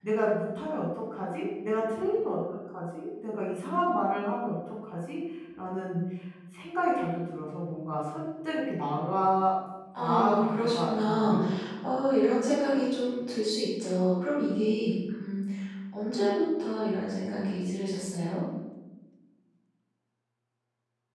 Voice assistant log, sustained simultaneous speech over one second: present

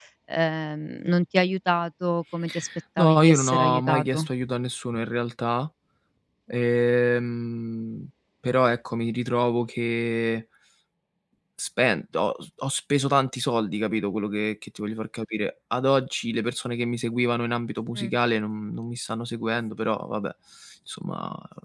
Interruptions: present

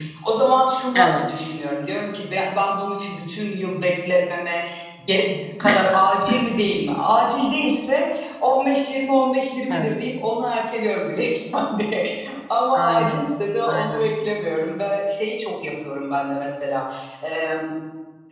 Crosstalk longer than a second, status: none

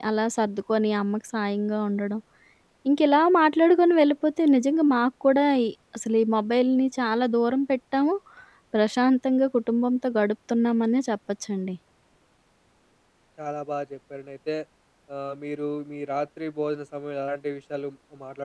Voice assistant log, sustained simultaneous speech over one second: none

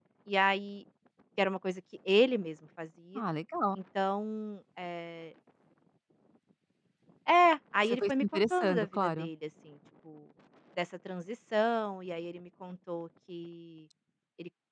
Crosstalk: present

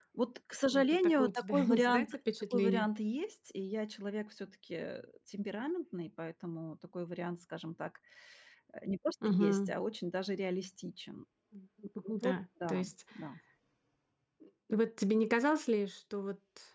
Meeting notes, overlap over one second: present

